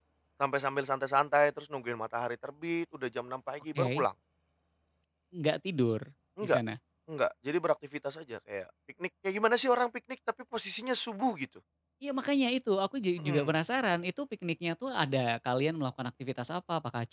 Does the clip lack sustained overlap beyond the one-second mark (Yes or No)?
Yes